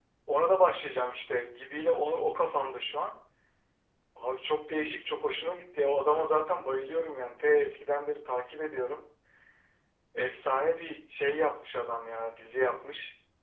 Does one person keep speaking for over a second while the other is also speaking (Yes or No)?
No